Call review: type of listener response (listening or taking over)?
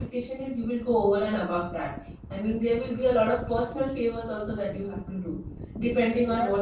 listening